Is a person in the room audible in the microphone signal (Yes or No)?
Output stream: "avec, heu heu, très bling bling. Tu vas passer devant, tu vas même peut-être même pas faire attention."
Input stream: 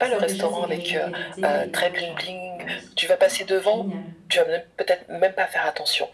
Yes